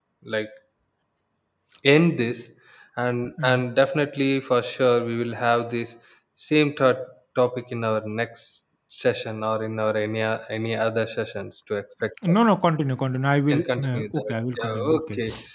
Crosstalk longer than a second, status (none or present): present